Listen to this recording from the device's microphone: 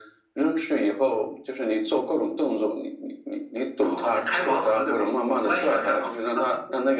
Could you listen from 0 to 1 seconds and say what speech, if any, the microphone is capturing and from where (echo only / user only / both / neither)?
echo only